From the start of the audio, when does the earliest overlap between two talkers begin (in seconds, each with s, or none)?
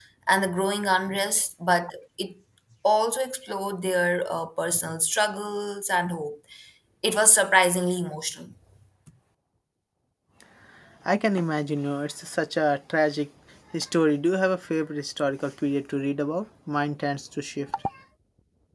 none